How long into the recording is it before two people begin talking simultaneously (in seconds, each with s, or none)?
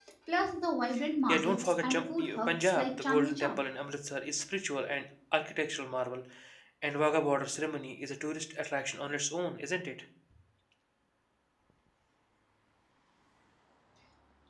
1.3 s